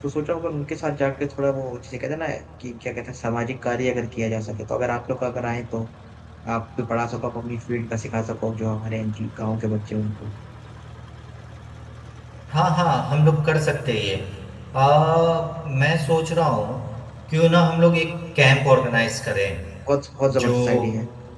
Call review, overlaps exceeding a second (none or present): none